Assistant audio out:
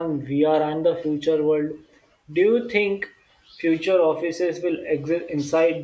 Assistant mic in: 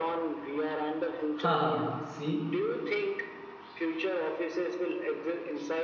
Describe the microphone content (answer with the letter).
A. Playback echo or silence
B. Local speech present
B